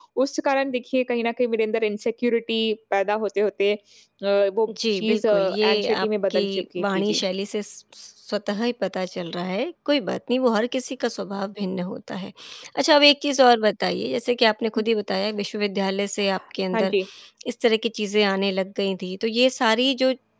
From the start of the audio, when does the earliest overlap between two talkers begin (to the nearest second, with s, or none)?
5 s